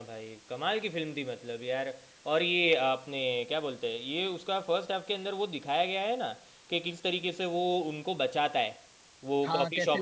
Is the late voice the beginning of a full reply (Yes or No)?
Yes